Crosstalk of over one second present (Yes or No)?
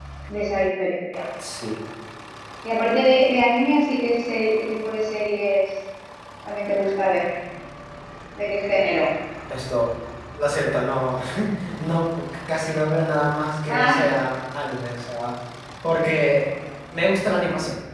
No